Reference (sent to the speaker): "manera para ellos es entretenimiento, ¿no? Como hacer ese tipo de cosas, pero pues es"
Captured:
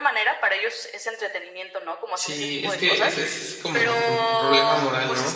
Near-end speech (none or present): present